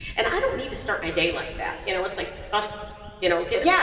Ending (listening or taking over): taking over